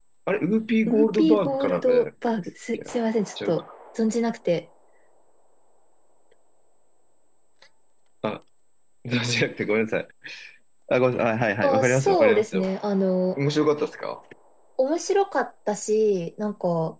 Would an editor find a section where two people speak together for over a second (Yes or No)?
Yes